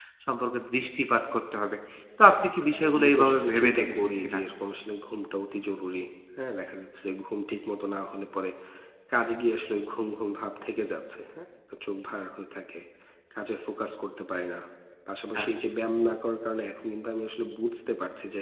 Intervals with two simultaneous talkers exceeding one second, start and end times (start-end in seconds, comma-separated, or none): 2.8-4.4